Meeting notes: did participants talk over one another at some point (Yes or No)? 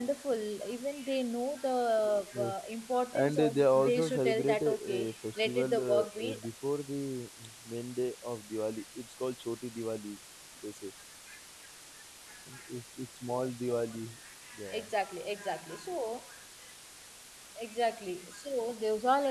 Yes